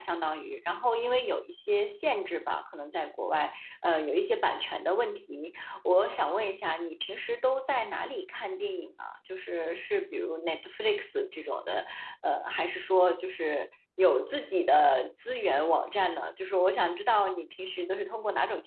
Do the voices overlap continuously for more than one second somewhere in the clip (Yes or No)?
No